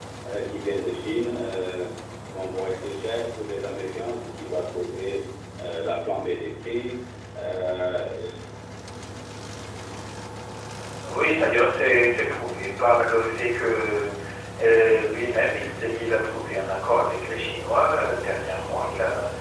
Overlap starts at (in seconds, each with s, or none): none